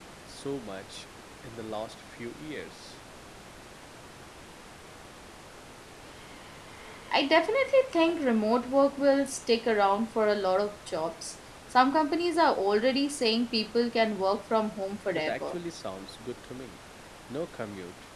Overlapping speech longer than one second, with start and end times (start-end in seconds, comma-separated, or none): none